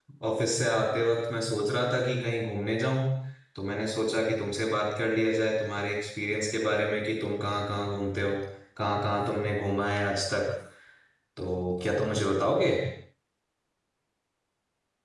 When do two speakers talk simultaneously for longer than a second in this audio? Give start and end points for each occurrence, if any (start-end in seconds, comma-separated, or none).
none